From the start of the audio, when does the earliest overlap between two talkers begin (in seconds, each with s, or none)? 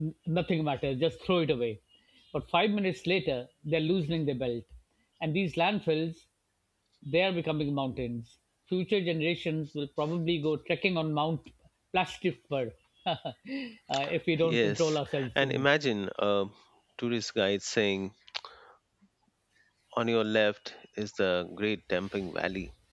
14.4 s